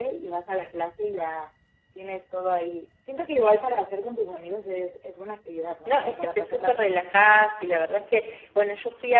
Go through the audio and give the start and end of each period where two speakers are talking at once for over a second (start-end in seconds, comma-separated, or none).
5.8-7.1